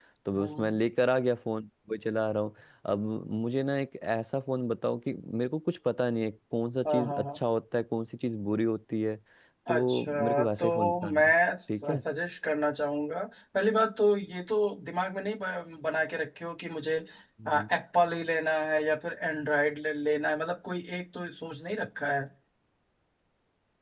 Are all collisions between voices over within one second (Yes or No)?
No